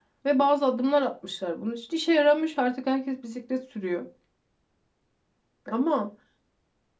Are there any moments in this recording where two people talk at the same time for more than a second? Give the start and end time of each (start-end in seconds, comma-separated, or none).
none